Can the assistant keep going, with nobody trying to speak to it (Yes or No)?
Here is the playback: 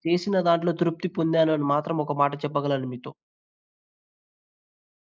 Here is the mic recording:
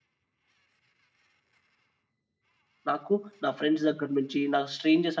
No